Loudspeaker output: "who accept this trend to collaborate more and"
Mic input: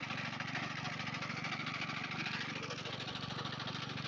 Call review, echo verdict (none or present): none